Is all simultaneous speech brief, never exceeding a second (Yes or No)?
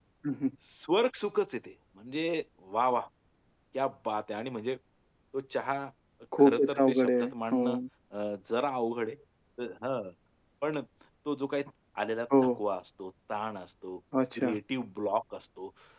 No